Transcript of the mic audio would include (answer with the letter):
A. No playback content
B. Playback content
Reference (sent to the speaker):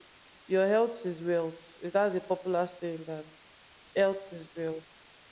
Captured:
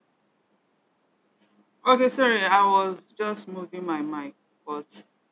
A